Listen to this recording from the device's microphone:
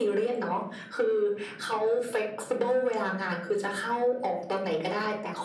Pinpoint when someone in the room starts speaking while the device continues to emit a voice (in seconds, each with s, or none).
none